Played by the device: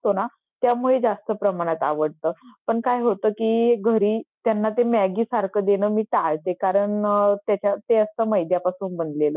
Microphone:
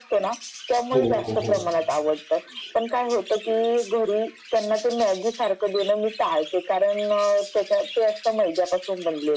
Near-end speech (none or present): present